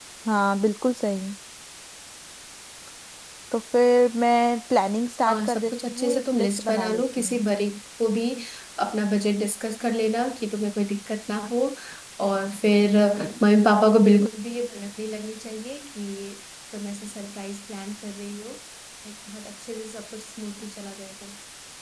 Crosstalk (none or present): present